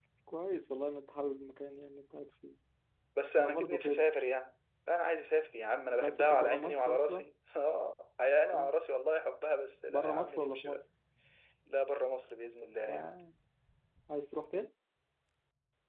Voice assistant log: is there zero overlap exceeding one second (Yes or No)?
No